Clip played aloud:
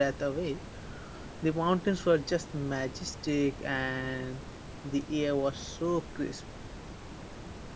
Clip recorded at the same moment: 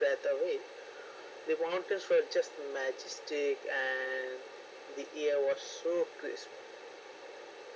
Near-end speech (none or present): none